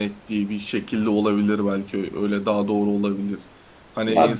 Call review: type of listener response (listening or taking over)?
listening